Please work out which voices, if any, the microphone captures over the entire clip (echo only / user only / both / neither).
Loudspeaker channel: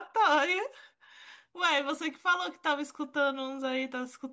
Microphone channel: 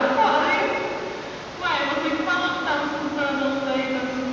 echo only